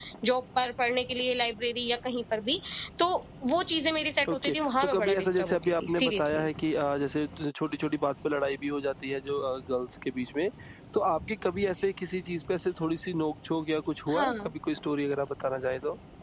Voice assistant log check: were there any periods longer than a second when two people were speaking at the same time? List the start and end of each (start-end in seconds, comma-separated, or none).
4.3-6.5